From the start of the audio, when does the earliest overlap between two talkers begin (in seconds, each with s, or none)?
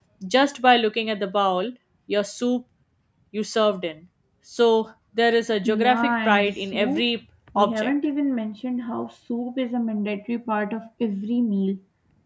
5.6 s